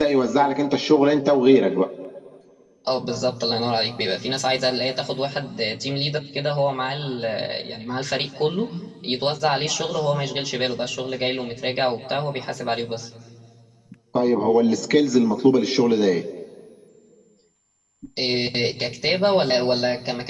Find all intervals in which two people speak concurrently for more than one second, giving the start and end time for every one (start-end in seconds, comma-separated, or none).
none